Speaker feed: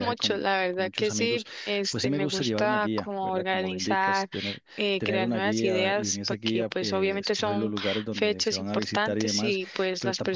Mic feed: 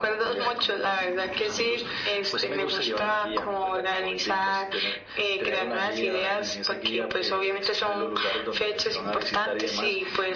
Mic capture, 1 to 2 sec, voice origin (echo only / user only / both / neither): echo only